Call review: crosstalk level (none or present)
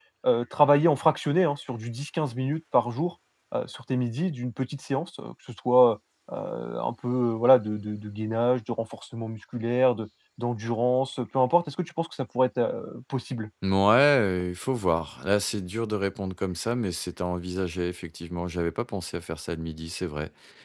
none